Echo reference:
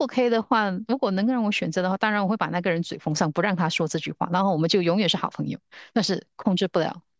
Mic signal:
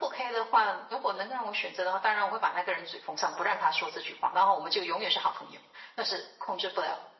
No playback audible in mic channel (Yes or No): No